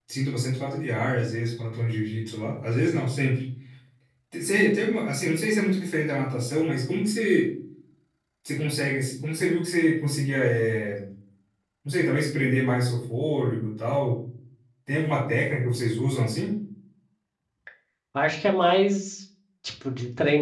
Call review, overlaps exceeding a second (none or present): none